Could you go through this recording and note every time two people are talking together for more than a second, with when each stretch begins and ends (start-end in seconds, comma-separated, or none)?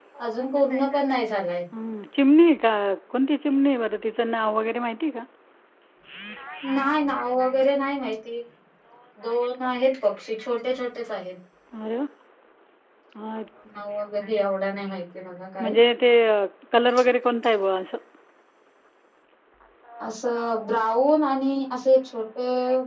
none